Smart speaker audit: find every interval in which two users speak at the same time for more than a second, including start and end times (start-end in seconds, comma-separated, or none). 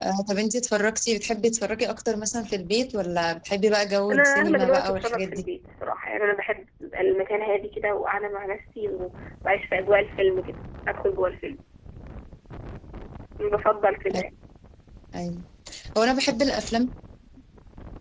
4.1-5.4